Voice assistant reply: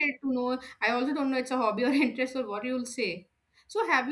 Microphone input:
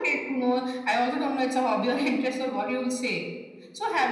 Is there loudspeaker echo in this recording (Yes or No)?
Yes